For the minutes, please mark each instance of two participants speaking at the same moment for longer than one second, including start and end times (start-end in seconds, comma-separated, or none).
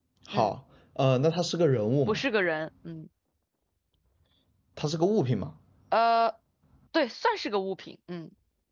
none